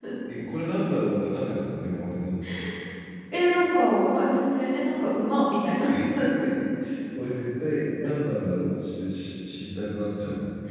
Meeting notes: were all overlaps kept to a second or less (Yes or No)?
Yes